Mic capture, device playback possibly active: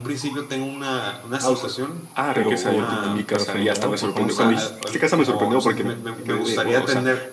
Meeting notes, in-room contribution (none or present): present